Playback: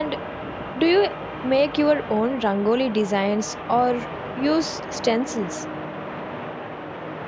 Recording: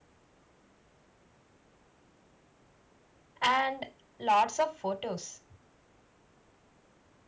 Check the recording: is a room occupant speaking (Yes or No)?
Yes